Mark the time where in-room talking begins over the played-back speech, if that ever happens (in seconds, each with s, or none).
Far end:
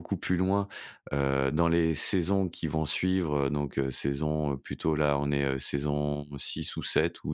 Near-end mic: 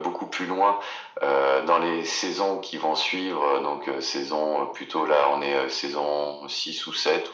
none